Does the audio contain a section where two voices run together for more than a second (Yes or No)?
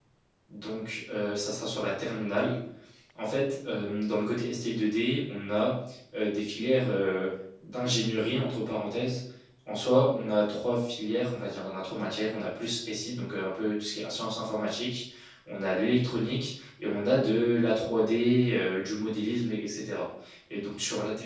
No